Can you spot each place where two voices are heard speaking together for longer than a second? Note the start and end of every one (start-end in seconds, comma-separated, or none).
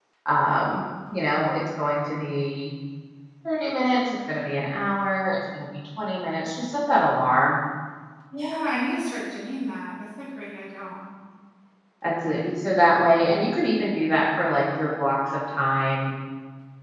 none